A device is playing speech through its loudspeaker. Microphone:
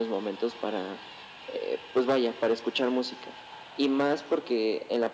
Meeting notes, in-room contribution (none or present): none